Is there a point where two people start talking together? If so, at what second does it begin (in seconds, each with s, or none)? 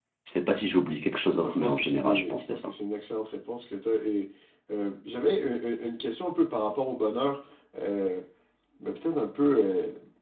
1.3 s